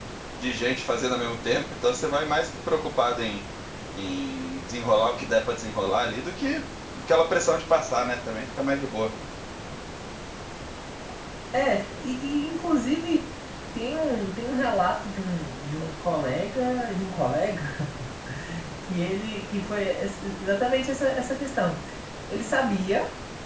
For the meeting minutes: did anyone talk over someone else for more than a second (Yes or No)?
No